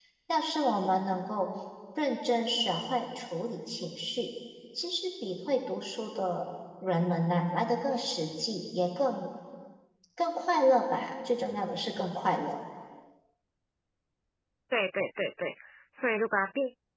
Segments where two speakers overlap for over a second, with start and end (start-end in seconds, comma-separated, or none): none